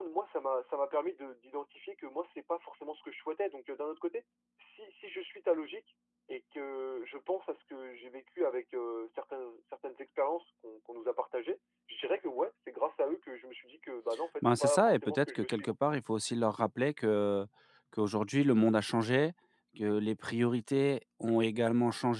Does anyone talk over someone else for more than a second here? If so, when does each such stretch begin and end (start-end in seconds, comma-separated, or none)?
14.4-15.7